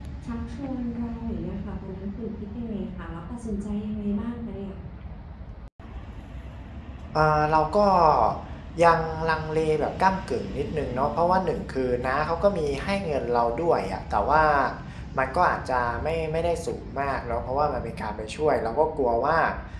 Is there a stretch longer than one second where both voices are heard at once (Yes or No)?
No